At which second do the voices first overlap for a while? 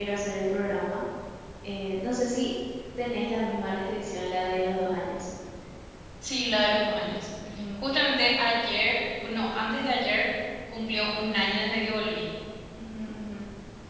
none

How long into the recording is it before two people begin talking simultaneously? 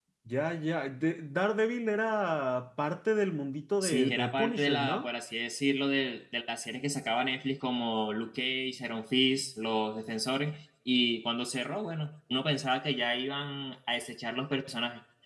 3.8 s

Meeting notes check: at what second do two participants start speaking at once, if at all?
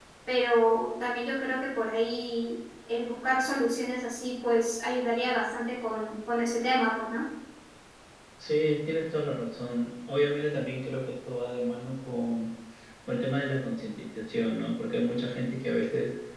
none

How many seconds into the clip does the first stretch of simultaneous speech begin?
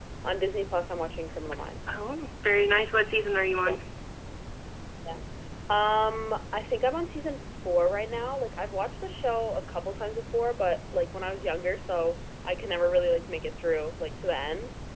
none

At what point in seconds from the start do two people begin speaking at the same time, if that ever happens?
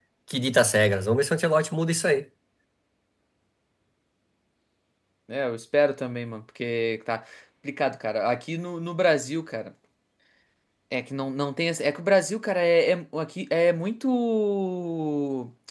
none

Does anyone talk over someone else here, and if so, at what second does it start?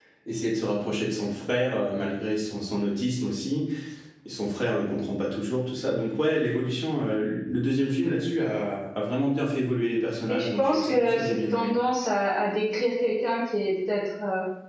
10.3 s

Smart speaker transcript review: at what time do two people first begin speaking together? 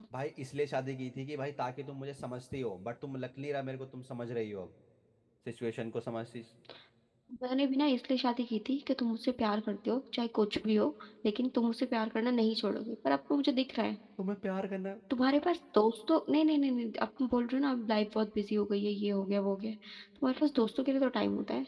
none

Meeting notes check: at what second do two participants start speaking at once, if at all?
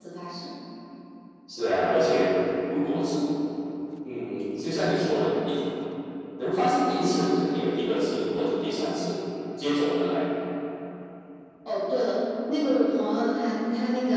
none

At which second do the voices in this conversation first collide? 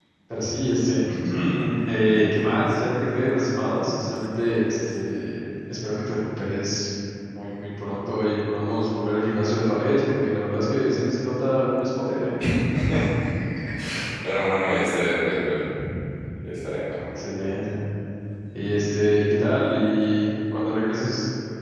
none

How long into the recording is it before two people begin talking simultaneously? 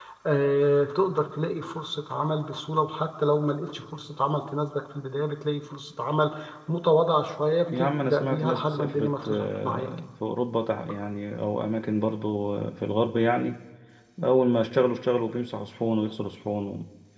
7.7 s

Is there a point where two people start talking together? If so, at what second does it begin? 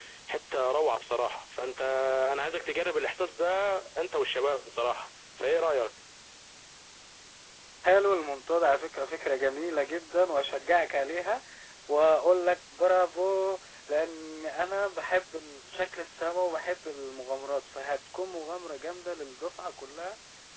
none

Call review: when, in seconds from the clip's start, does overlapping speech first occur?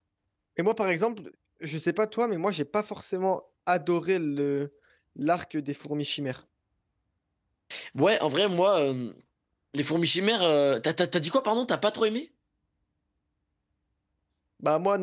none

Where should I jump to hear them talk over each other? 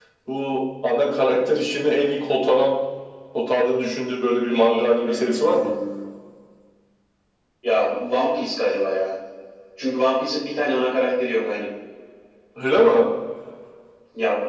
4.5 s

